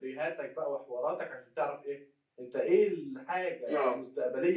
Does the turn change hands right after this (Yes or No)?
No